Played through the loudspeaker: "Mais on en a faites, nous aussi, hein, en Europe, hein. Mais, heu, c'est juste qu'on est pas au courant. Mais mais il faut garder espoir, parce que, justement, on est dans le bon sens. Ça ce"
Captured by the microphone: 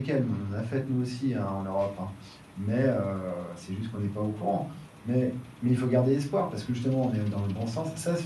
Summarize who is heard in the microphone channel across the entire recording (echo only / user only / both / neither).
echo only